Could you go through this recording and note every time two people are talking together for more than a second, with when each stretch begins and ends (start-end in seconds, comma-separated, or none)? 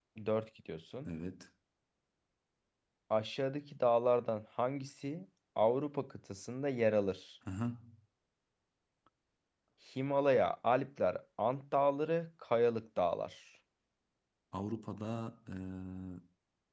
none